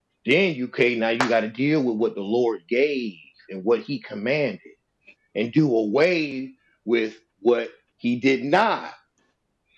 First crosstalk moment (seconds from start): none

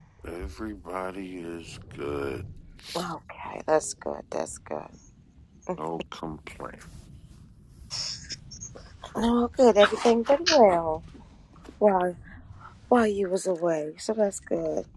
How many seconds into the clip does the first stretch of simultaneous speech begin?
none

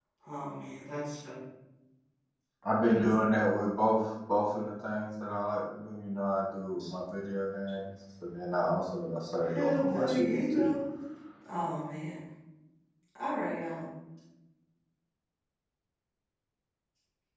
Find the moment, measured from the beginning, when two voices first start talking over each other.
9.5 s

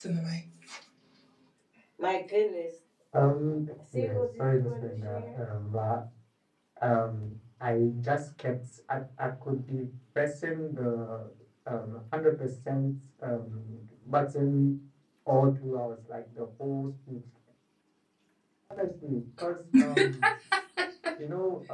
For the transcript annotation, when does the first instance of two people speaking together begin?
3.9 s

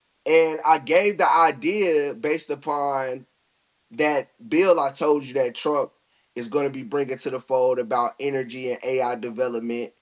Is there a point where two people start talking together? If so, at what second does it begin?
none

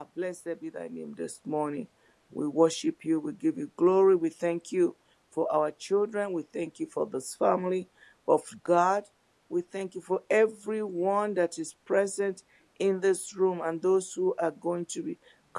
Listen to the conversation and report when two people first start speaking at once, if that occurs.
none

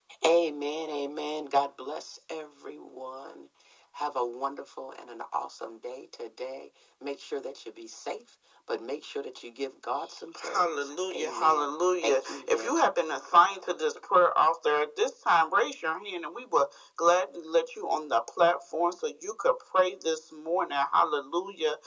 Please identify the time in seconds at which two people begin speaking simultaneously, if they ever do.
10.4 s

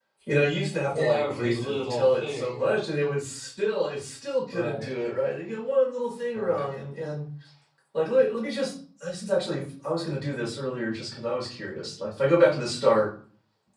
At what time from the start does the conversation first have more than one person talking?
0.9 s

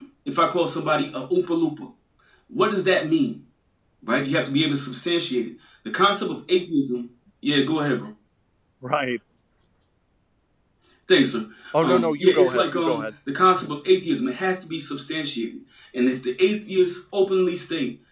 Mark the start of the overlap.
11.8 s

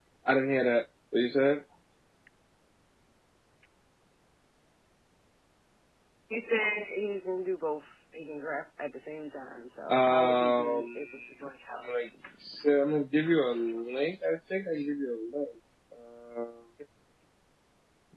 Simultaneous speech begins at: 9.9 s

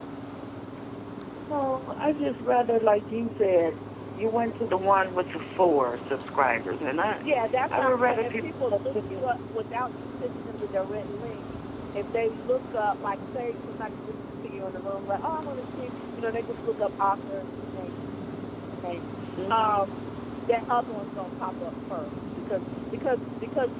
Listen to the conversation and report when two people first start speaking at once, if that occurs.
7.8 s

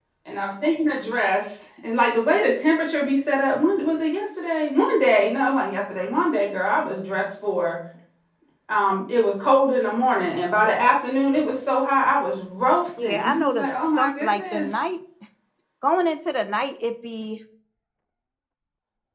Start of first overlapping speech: 13.0 s

